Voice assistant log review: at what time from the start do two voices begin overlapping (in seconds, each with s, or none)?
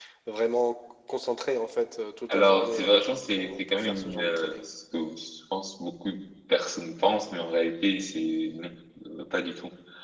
2.3 s